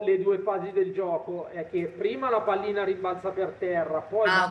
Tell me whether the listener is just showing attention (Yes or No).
Yes